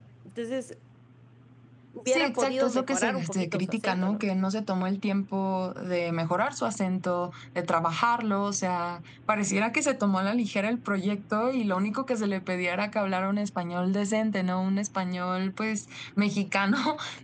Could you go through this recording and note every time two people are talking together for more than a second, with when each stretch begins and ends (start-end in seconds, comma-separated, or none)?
2.1-4.2